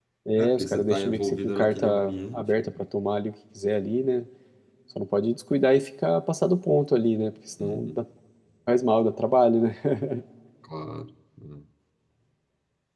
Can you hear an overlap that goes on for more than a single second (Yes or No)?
Yes